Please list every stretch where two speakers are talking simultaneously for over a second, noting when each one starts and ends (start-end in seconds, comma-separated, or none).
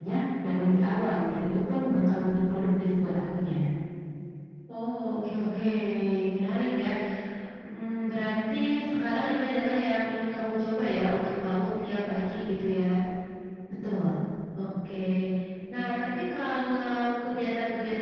none